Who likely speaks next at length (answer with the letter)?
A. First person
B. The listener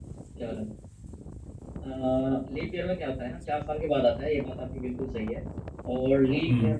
A